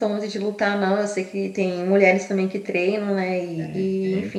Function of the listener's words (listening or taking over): listening